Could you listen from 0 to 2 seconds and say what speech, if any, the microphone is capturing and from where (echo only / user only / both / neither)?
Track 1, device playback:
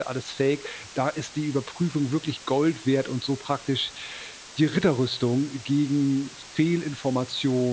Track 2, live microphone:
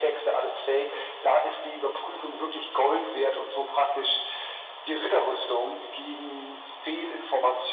echo only